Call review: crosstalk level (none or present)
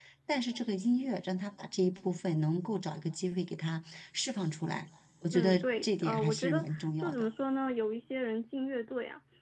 present